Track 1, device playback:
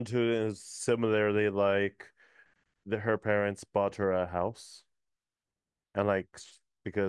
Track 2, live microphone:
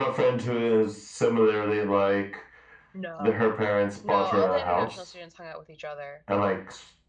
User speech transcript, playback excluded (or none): no, no, all the international students hung out with each other.